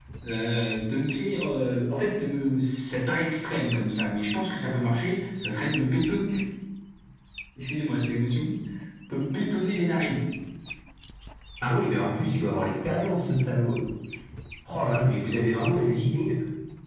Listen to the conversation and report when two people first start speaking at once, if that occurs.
none

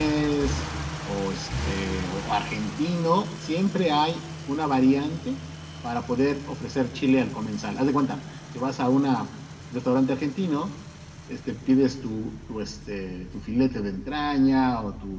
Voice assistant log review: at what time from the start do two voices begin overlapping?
none

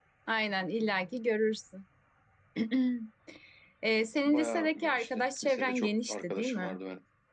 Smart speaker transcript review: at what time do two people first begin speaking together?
4 s

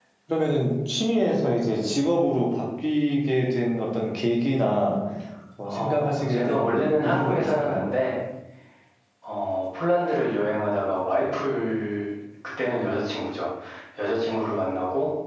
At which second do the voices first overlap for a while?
6 s

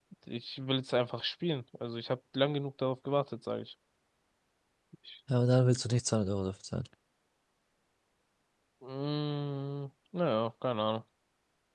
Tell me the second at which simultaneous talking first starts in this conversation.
none

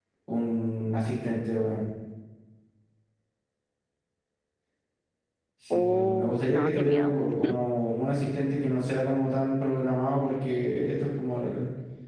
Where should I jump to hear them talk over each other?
6 s

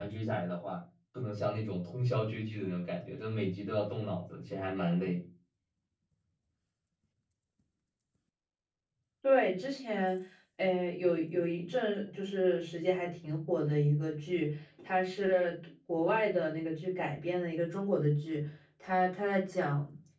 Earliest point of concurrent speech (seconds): none

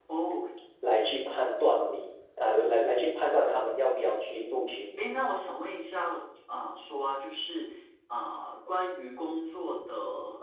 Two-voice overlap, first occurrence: none

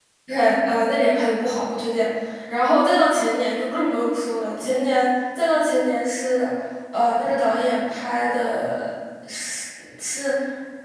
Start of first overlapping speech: none

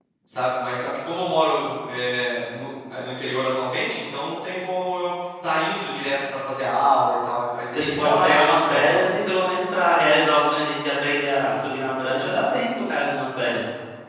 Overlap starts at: 8 s

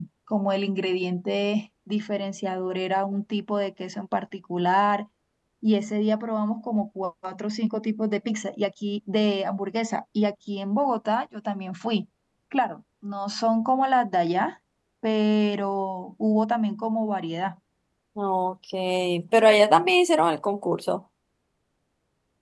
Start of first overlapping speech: none

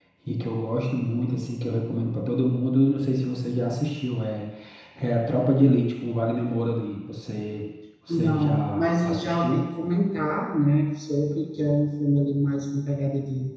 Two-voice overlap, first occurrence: 8 s

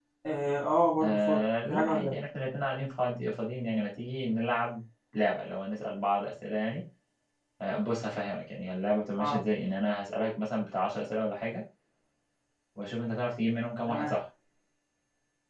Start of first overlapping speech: 1 s

